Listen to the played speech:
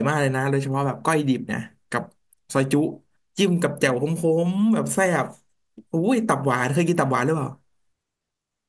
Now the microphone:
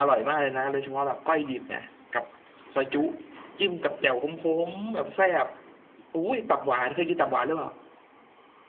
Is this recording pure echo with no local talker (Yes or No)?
Yes